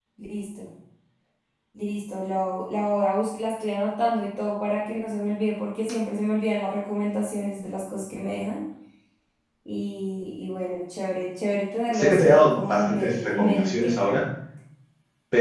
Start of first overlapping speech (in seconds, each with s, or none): 11.9 s